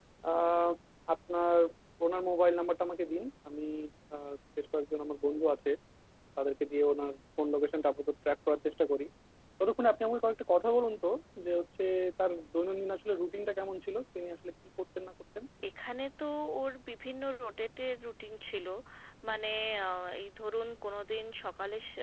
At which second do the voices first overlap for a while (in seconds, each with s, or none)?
none